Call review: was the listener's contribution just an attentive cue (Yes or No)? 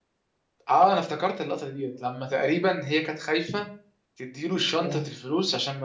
Yes